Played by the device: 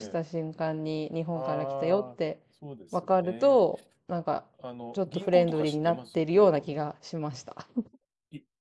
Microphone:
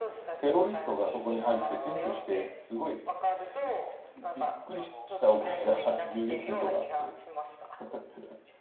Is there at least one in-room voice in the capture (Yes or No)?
Yes